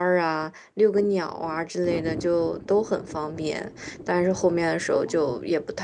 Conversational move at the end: listening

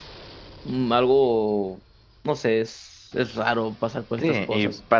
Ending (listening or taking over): taking over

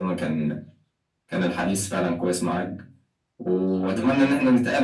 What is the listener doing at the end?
listening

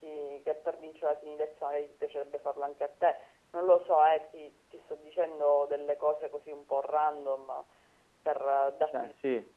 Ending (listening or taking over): listening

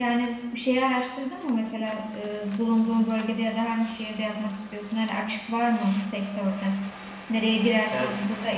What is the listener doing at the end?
listening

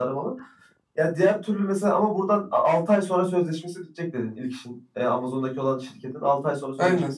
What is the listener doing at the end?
taking over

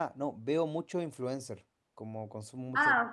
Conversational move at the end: listening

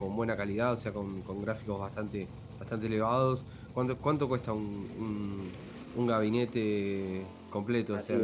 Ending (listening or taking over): taking over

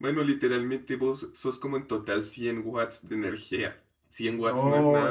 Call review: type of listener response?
taking over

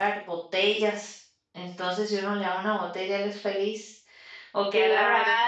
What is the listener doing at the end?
listening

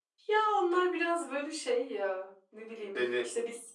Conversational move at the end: listening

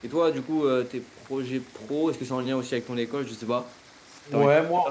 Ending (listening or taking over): taking over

